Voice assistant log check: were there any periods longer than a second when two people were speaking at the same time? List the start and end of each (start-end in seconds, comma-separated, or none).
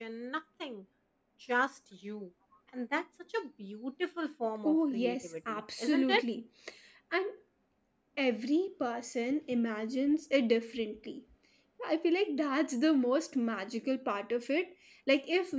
4.6-6.2